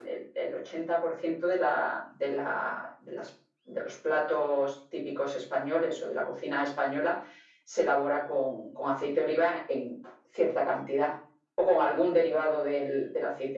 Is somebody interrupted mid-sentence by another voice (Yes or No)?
No